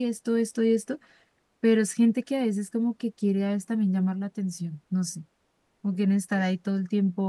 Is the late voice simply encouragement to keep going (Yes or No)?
Yes